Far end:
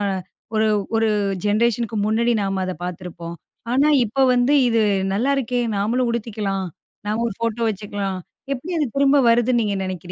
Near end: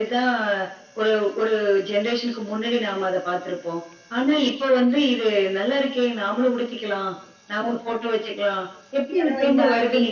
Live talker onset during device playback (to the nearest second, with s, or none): 9 s